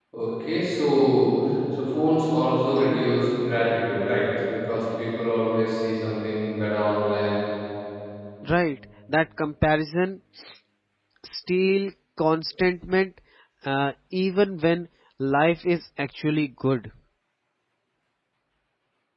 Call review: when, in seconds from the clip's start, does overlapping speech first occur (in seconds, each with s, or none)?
none